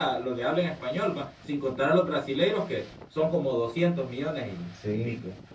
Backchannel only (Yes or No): No